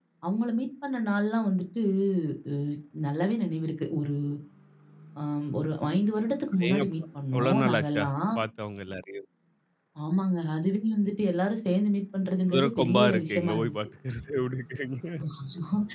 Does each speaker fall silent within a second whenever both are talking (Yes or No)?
No